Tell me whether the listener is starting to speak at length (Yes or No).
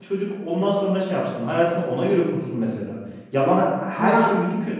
No